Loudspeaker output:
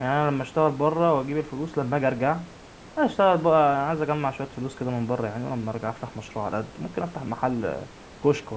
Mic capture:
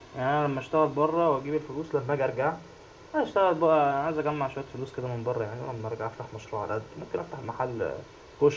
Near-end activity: none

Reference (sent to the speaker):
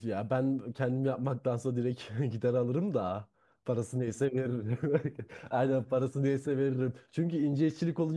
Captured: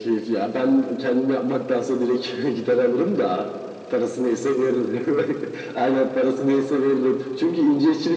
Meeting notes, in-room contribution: none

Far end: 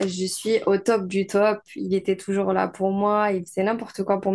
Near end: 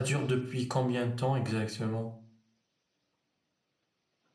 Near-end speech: present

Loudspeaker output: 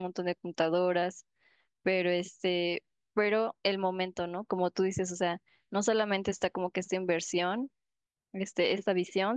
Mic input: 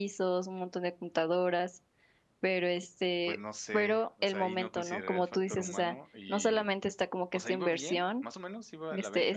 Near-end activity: present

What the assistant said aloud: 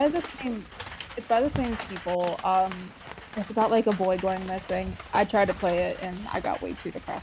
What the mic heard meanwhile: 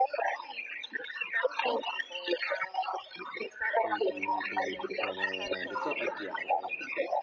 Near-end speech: present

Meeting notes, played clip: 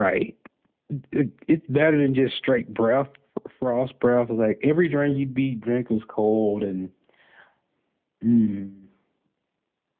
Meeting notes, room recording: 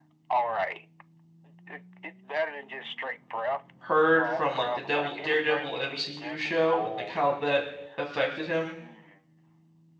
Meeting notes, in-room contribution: present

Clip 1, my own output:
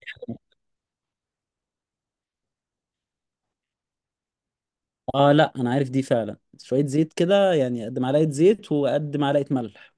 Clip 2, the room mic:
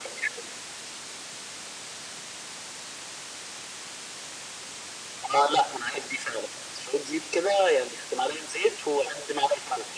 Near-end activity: none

